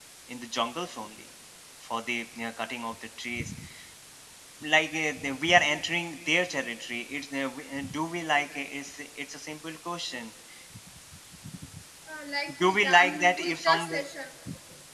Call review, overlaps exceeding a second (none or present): present